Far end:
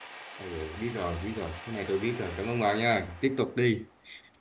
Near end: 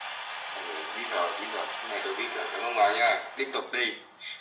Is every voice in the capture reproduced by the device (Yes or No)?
Yes